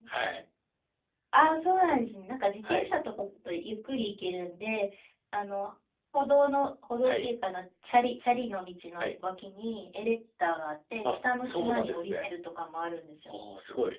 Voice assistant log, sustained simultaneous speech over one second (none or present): present